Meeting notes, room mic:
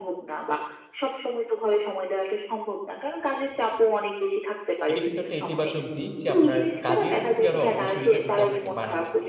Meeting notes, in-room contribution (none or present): present